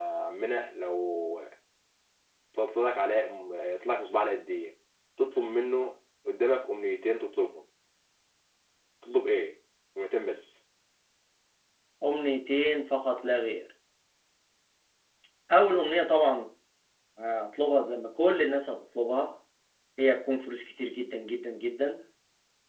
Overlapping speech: No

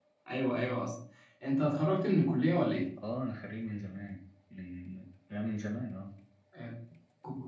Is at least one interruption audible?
No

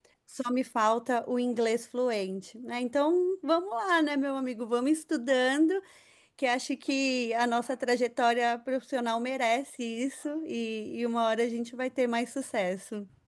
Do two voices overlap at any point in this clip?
No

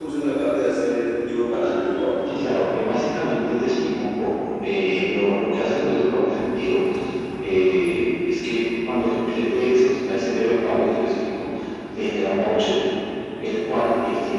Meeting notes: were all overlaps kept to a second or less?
Yes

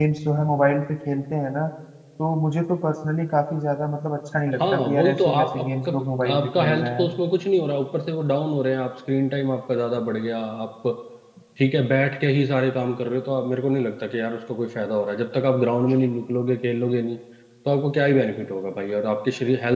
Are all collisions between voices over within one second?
No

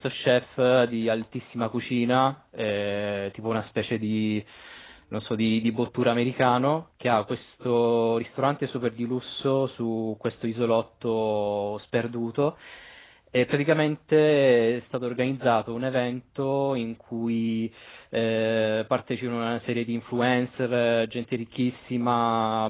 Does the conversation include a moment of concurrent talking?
No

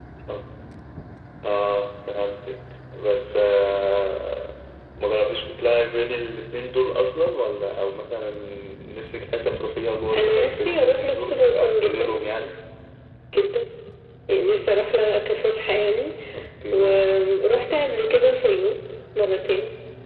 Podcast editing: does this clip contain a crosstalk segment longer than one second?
Yes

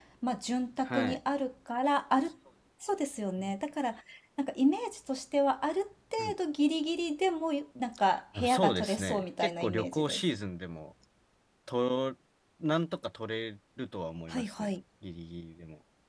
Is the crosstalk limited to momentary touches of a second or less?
No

